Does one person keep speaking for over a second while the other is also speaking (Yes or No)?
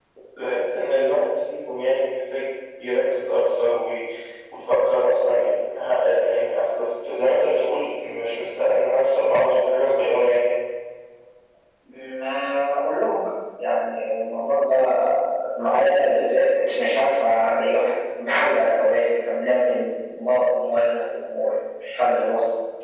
No